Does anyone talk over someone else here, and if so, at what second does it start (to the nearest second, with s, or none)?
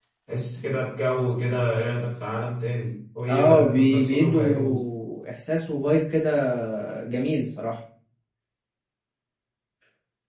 3 s